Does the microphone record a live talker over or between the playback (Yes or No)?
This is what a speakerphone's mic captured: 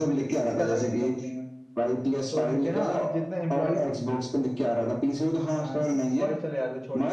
Yes